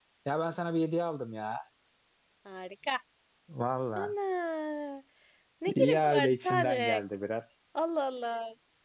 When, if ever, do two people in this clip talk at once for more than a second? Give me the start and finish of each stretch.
5.7-7.0

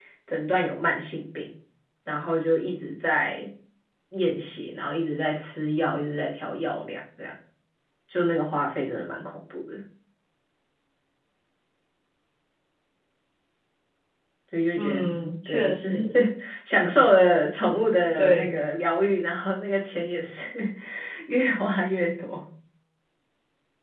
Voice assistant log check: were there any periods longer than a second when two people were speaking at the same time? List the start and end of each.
14.8-16.0

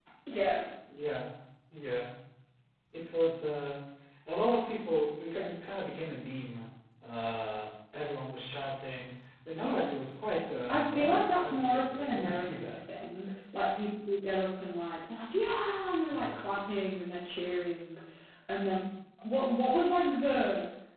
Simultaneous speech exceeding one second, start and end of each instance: 10.7-12.7

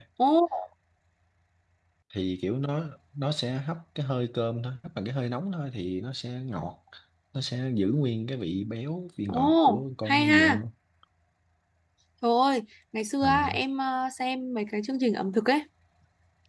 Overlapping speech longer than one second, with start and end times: 9.3-10.6

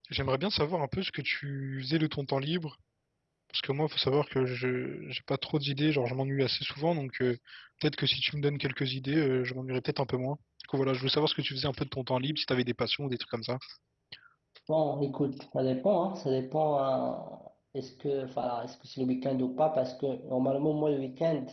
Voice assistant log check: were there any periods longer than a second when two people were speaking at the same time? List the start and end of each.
none

